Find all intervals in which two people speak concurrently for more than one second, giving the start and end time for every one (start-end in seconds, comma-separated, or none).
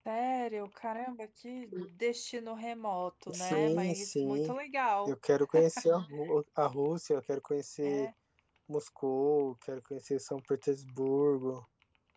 3.3-4.5